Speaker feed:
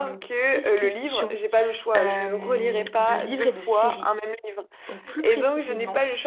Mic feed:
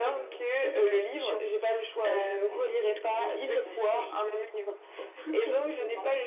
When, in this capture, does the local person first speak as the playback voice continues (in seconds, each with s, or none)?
none